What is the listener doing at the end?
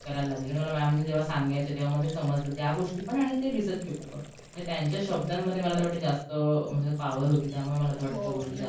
taking over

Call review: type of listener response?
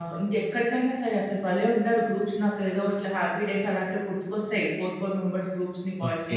taking over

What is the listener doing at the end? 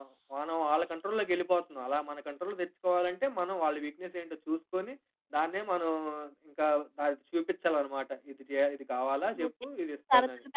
taking over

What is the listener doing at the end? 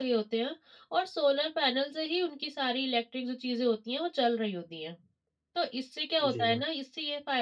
listening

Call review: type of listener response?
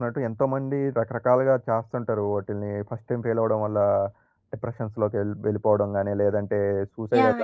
taking over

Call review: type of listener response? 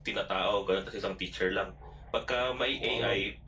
listening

